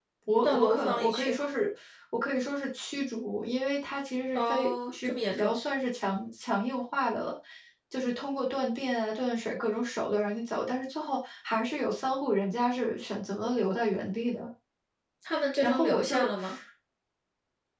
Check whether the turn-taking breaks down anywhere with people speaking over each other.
Yes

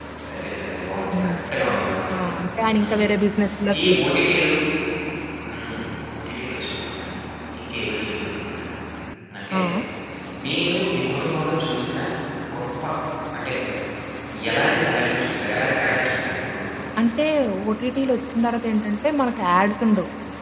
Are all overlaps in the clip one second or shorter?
Yes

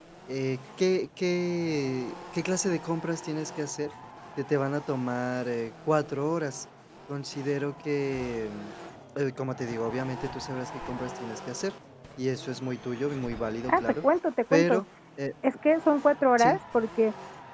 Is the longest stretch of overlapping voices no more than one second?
Yes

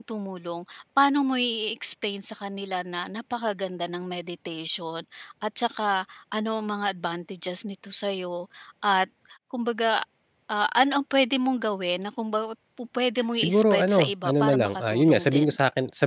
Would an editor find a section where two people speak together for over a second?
Yes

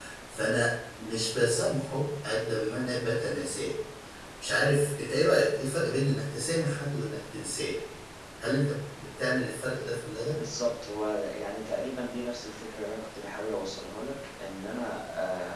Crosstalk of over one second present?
No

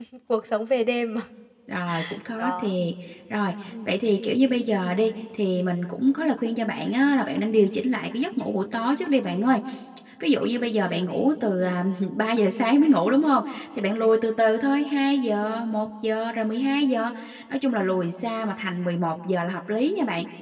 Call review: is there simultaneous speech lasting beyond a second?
No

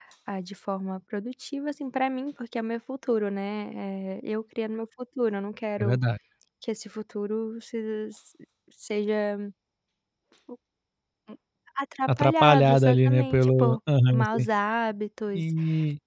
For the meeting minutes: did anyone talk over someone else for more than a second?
Yes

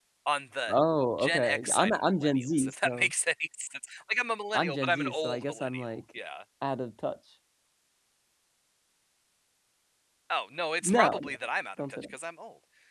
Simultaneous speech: Yes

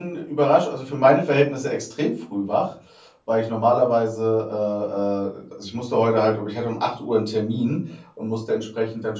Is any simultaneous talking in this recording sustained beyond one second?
No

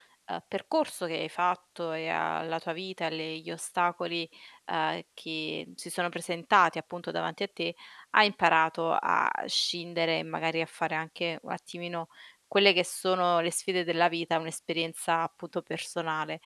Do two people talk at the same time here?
No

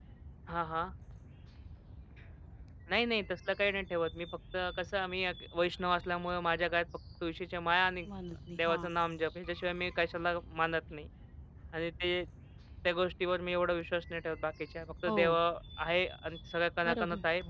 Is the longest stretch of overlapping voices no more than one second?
Yes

